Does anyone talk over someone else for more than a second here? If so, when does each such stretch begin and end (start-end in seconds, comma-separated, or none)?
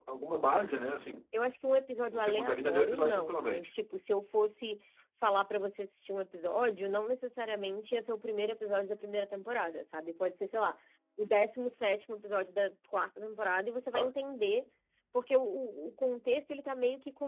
2.1-3.7